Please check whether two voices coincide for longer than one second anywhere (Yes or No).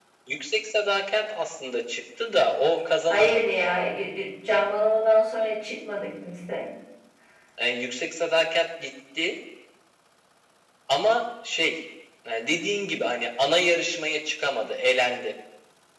No